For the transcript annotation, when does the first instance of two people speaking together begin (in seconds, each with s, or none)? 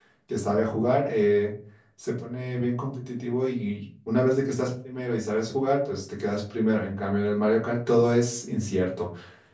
none